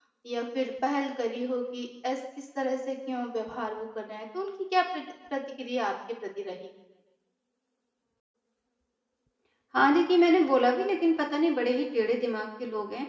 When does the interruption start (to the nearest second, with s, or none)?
none